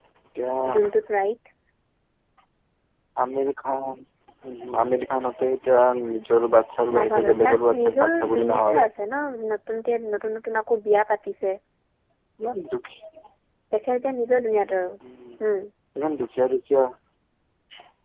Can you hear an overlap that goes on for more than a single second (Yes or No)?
Yes